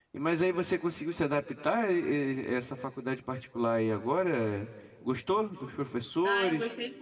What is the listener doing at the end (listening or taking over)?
taking over